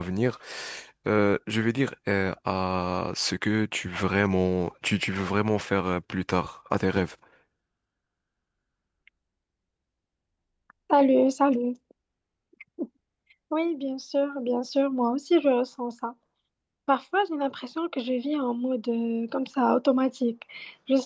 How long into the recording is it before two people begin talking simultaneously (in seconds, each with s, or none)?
none